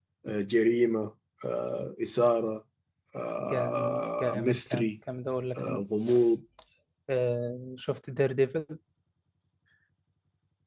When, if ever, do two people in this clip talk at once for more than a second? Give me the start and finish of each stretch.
3.4-4.9

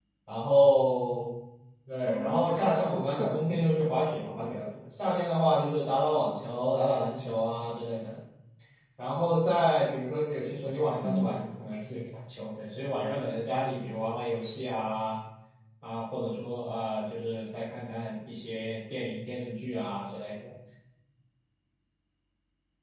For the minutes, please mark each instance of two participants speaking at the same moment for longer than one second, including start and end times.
2.0-3.4

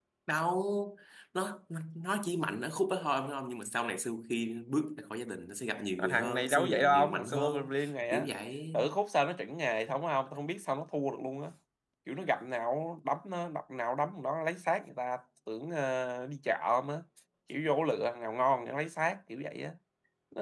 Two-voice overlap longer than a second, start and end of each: 6.0-7.7

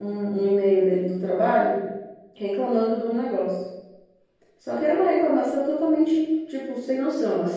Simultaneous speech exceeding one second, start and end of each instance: none

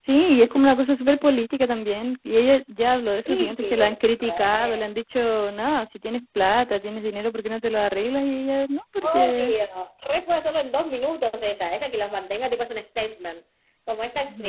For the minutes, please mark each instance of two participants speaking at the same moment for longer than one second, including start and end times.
3.3-4.8

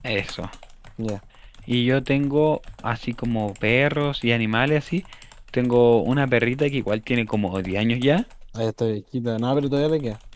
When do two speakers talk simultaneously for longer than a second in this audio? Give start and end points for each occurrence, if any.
none

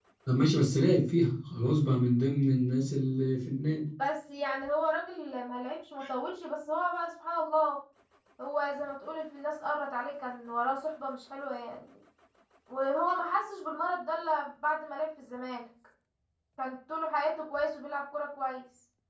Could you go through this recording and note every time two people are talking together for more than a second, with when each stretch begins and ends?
none

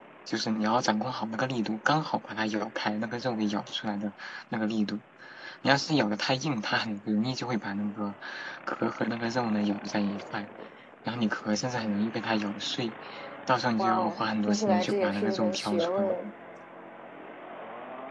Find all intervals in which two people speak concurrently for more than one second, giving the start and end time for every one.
13.8-16.2

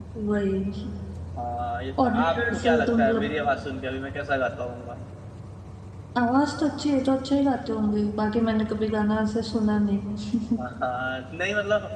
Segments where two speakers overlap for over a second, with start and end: 2.0-3.3

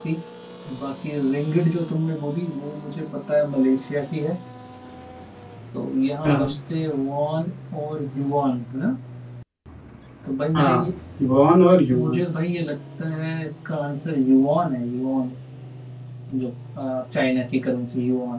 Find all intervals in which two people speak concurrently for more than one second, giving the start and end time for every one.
none

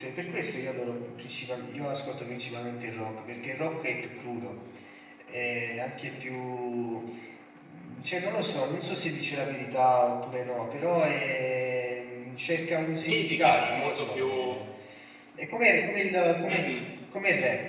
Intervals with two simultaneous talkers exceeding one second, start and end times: 13.0-14.6

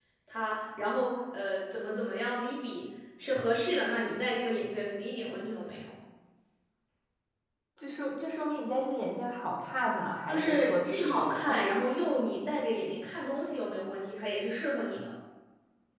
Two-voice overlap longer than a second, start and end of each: 10.3-11.6

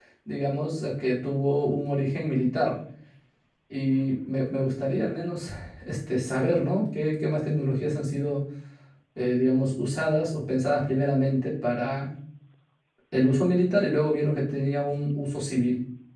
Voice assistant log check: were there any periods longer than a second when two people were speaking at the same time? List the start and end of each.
none

